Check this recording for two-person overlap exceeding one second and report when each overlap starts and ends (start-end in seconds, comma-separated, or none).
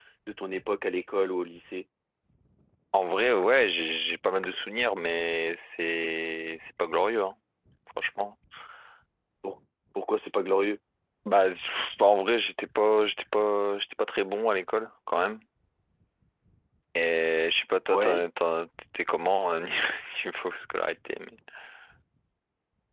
none